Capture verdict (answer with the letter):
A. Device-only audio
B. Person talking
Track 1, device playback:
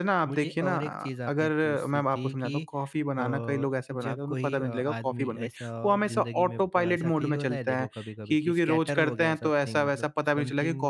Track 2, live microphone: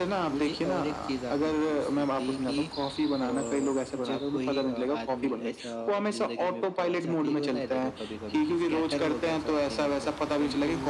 A